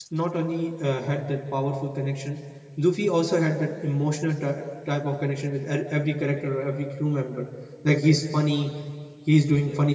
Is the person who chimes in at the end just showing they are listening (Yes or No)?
Yes